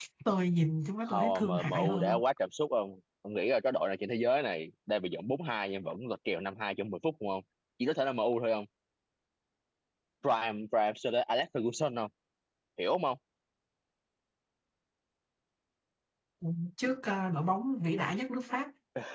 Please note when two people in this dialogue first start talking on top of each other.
1.0 s

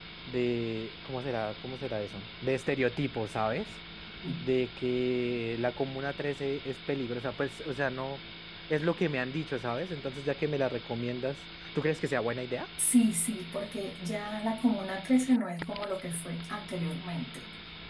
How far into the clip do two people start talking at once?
none

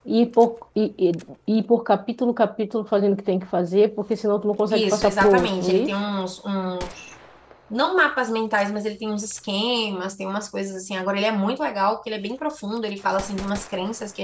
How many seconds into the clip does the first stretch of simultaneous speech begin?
4.7 s

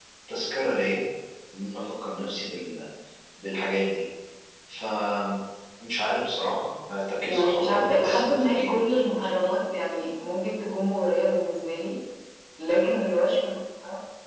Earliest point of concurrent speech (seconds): 7.2 s

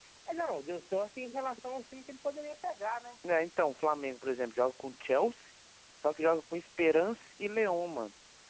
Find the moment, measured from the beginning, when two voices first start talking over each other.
none

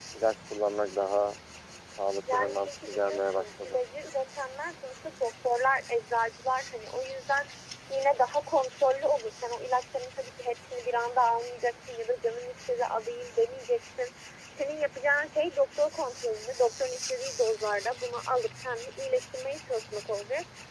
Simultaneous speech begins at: 2.3 s

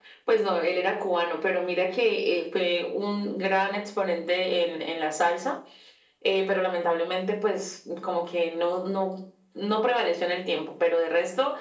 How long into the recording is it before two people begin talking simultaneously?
none

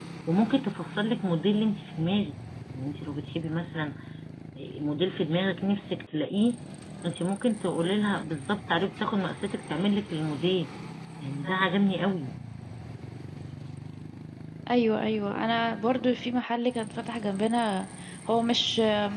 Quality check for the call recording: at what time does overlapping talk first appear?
none

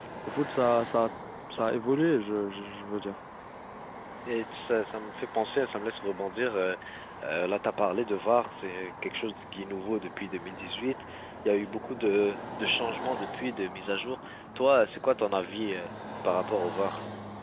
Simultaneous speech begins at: none

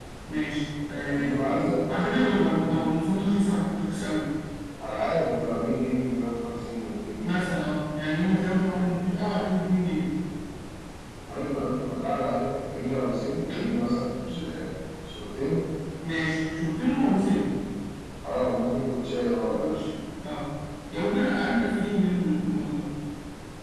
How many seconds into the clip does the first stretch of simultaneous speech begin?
1.0 s

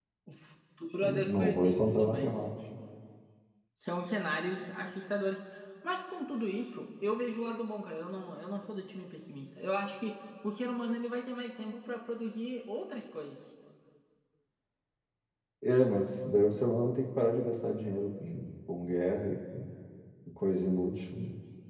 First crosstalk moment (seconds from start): 1.0 s

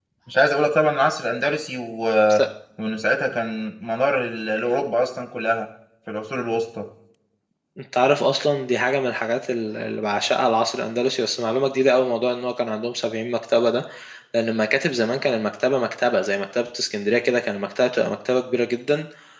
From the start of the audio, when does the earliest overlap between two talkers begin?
none

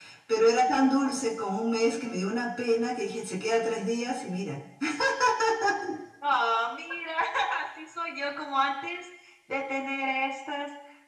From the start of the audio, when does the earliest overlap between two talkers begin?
none

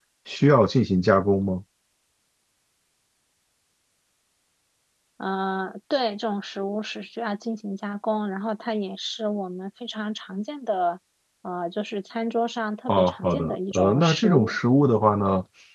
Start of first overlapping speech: 12.9 s

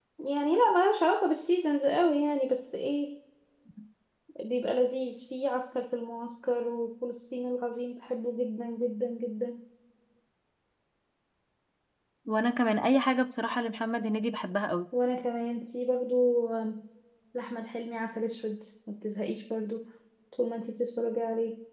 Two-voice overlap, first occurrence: none

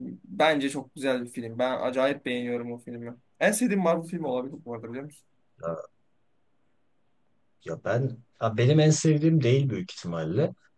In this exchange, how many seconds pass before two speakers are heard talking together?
none

